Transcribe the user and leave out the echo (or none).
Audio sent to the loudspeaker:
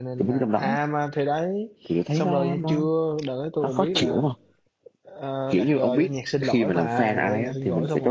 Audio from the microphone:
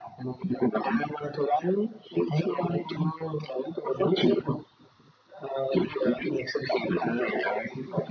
none